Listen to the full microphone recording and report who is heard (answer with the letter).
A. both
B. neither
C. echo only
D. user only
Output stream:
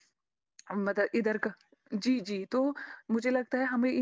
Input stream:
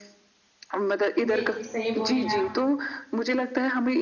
A